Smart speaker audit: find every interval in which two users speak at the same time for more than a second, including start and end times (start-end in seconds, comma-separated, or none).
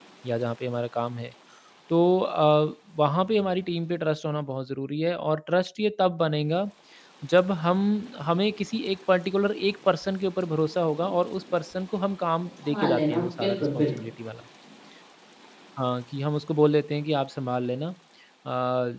12.6-14.1